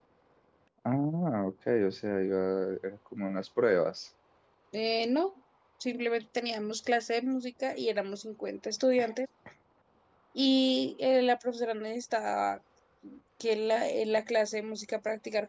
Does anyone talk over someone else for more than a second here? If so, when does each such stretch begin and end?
none

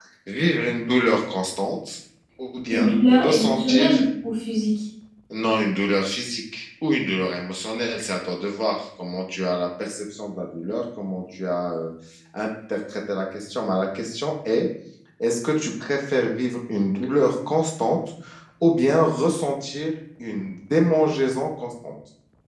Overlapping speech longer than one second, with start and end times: 2.7-4.0

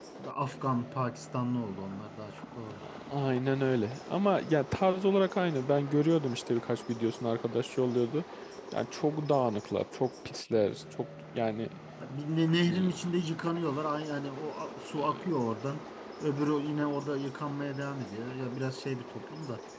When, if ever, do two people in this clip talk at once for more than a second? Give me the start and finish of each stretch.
none

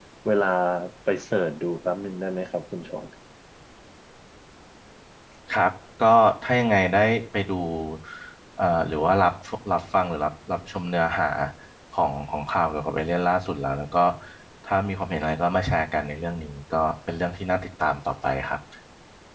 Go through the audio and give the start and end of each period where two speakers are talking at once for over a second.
none

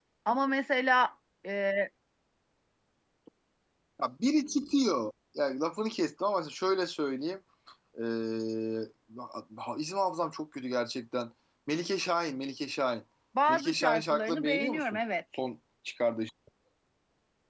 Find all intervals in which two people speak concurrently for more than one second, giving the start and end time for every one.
13.5-15.0

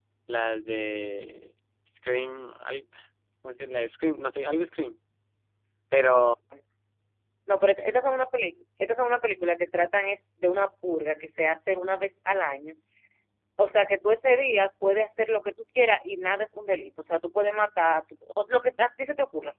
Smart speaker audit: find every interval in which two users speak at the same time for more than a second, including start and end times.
none

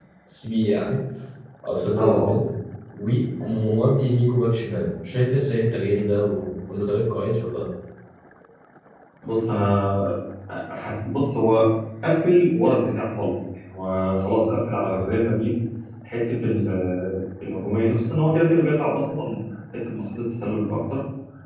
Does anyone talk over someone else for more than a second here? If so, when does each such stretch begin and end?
none

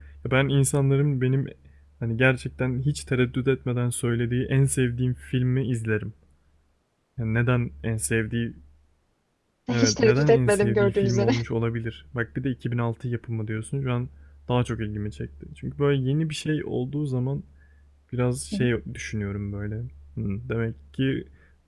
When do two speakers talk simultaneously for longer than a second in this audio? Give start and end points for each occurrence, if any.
9.7-11.3

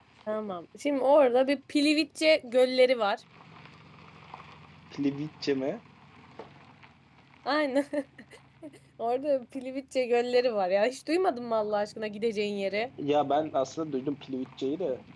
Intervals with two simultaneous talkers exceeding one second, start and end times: none

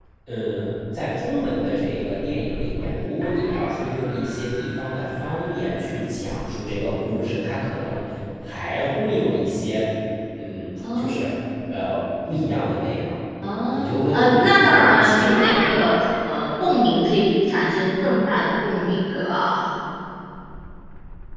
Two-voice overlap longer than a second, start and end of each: 13.7-15.8

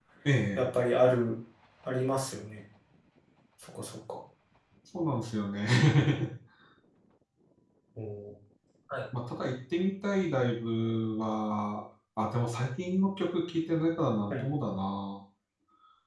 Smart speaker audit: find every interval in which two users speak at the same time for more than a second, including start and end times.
none

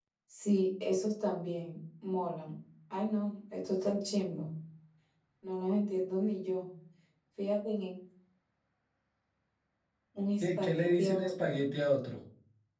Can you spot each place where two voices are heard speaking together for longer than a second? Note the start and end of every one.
10.4-11.6

